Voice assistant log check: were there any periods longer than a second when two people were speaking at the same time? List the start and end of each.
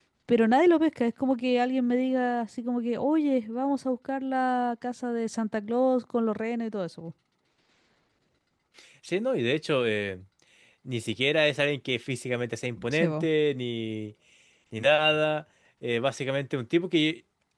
none

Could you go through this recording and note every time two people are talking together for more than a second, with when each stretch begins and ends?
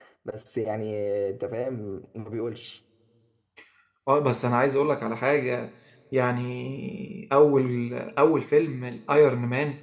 none

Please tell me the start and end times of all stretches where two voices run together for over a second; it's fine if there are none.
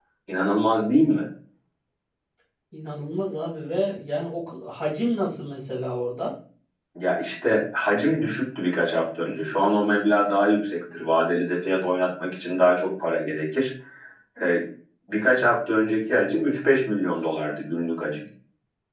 none

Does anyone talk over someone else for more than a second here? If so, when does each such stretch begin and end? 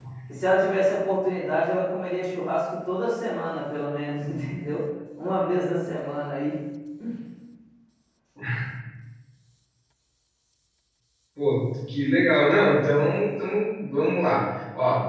none

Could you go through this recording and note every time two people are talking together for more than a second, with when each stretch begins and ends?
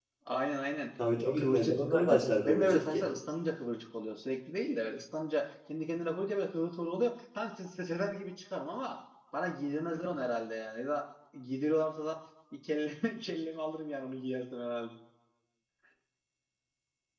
1.4-3.1

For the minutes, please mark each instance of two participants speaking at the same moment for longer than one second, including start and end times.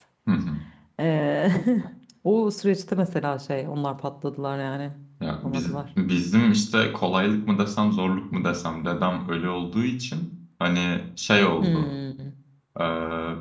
none

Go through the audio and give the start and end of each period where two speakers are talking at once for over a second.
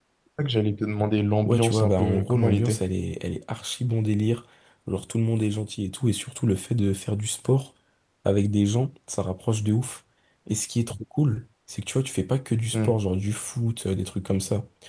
1.4-2.8

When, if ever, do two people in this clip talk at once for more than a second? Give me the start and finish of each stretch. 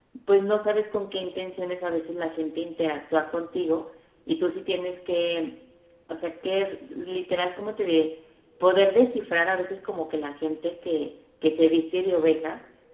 none

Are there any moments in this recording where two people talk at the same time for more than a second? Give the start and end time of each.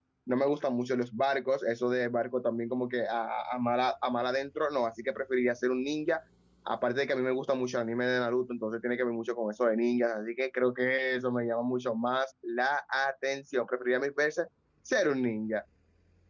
none

